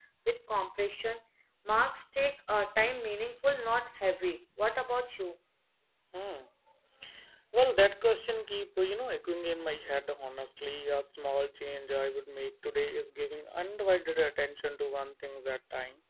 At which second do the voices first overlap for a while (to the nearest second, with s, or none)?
none